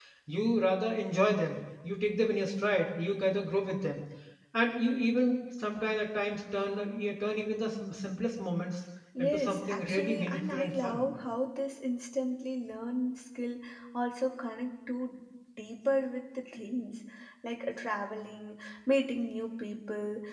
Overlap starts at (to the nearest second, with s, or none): 9 s